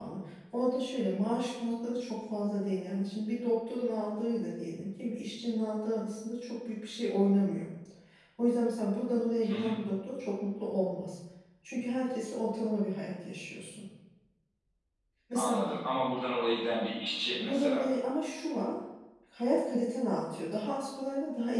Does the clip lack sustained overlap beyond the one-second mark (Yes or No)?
Yes